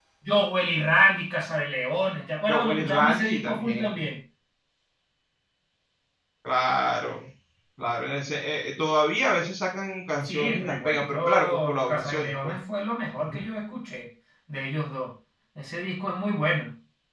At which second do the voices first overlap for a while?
2.5 s

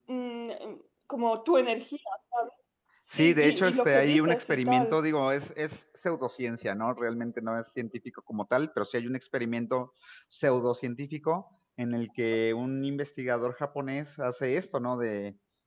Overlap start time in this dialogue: 3.2 s

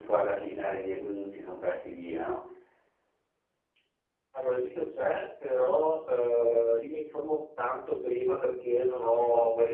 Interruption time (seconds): none

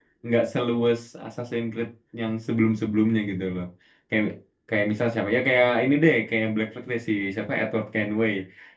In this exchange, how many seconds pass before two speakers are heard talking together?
none

